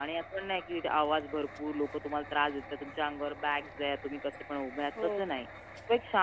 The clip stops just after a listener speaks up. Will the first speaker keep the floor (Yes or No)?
Yes